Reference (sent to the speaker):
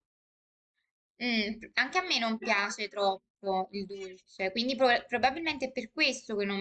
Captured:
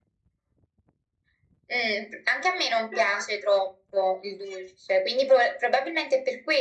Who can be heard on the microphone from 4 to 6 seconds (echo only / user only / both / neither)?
echo only